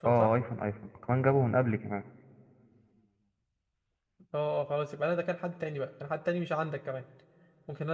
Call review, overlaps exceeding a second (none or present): none